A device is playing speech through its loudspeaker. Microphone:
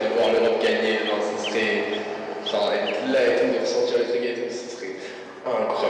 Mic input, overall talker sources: echo only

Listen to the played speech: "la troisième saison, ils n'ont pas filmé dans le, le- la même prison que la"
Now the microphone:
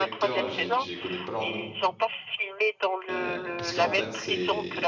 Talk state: both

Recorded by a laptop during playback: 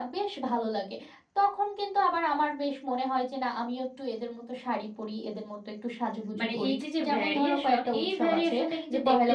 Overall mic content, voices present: both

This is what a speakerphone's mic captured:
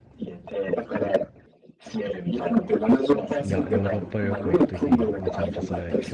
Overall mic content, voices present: both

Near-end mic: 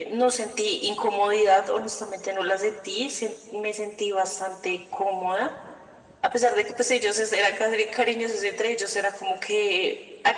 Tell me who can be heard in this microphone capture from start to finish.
echo only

